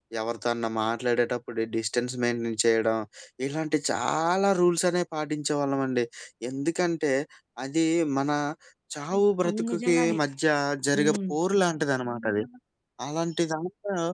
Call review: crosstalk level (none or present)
present